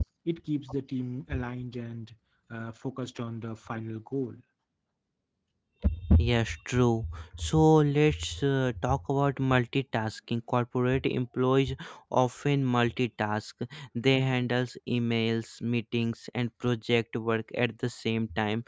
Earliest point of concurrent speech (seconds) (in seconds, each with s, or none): none